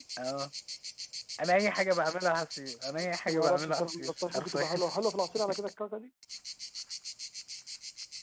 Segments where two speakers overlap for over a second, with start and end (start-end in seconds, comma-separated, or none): 3.2-4.7